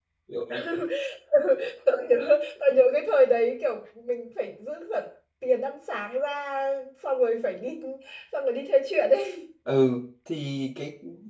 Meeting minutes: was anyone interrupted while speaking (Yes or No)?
No